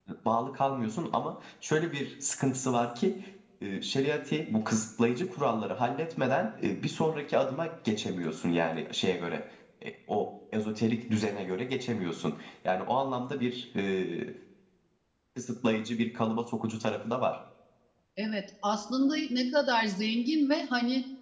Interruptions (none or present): none